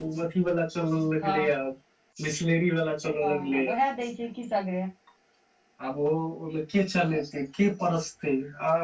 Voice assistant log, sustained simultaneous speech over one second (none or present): none